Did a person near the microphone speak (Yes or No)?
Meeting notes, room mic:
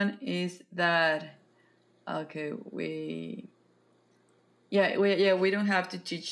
No